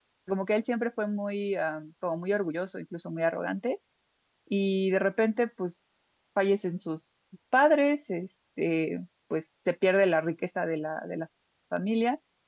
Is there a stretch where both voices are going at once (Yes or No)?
No